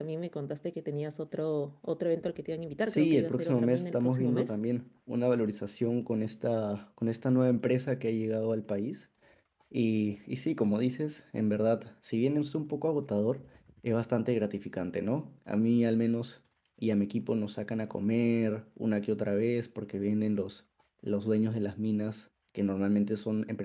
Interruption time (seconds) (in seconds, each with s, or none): 2.9 s